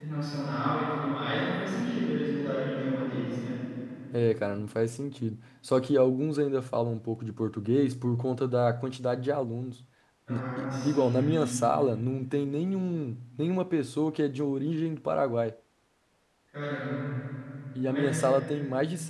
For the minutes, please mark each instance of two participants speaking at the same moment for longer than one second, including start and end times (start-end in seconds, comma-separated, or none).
10.3-11.6